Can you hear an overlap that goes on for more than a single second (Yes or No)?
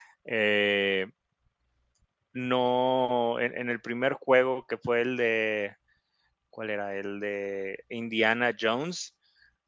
No